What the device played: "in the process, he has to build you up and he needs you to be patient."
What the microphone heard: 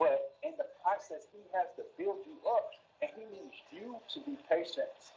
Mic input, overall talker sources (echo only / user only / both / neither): echo only